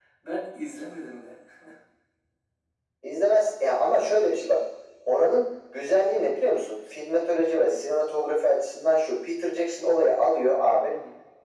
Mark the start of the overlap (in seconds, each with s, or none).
none